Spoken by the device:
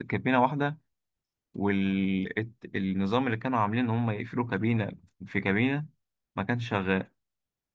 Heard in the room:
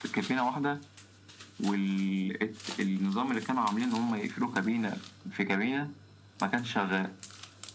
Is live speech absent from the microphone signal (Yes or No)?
Yes